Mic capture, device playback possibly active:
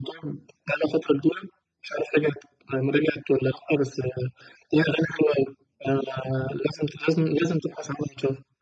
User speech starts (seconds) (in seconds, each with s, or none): none